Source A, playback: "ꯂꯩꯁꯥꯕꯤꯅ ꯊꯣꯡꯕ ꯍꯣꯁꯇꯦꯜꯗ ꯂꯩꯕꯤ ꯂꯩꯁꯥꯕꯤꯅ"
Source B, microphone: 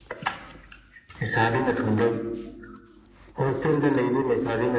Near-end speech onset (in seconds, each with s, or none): none